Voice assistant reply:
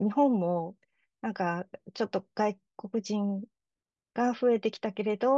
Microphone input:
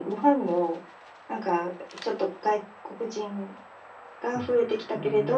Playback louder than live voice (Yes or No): Yes